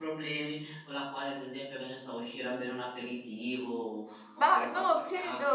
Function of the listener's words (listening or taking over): taking over